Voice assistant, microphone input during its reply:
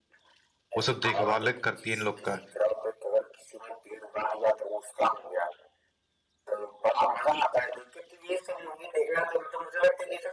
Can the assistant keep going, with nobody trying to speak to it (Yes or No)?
No